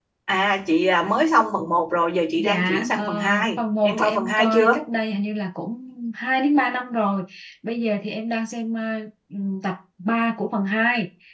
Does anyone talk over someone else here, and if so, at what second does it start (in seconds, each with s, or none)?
2.4 s